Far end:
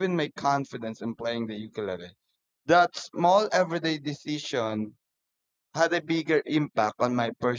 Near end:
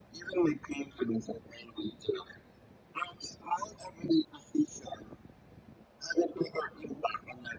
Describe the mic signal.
echo only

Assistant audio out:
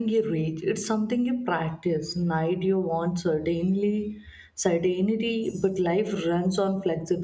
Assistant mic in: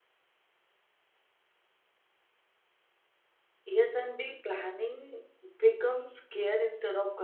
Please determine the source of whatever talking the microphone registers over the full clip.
user only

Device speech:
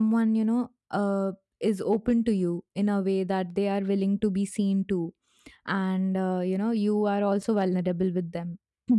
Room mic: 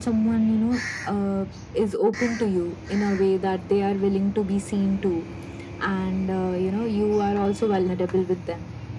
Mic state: echo only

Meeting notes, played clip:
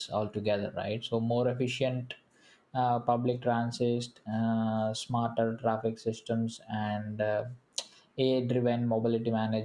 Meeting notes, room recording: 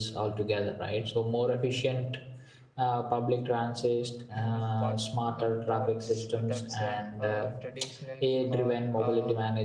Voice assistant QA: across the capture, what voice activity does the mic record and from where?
both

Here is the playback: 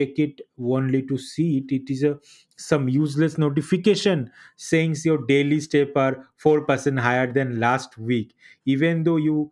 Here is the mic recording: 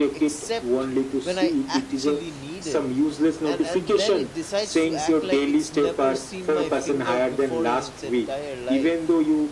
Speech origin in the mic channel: both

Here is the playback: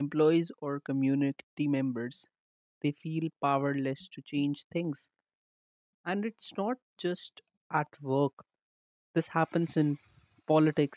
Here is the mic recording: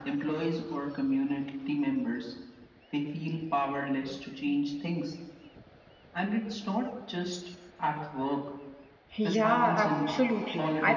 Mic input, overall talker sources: both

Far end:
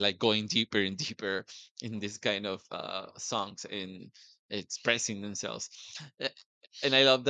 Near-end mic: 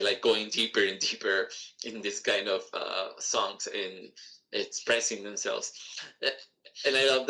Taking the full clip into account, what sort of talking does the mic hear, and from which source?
echo only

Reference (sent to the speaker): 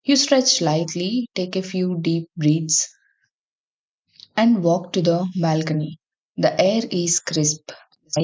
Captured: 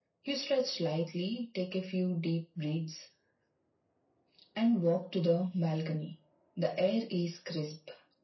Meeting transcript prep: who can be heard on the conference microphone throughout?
echo only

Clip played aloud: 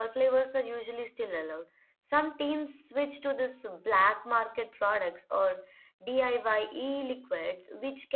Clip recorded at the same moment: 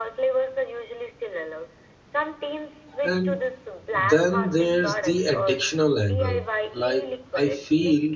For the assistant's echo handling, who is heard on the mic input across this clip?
both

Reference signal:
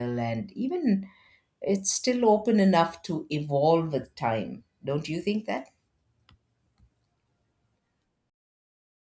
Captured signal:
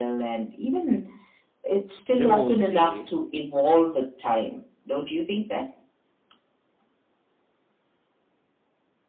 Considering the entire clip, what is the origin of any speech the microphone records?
both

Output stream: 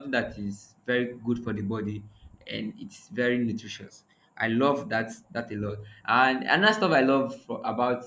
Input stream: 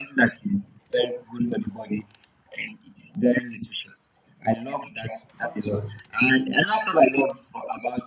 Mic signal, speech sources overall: both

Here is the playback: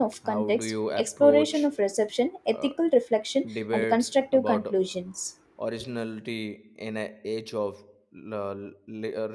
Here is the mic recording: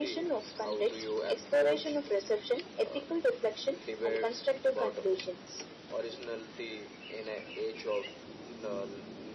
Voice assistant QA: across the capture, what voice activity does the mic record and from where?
echo only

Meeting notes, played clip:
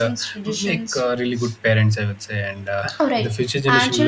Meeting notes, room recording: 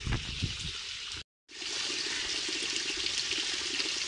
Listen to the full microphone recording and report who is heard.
neither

